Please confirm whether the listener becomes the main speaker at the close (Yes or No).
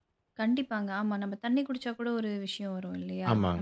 Yes